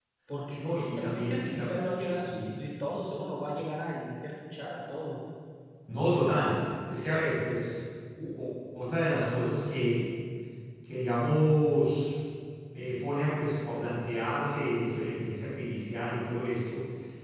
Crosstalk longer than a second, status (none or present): present